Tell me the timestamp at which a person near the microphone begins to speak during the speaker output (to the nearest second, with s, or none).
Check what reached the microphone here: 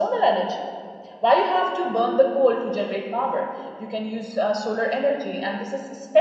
none